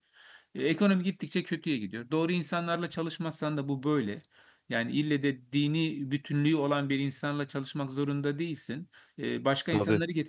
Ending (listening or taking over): listening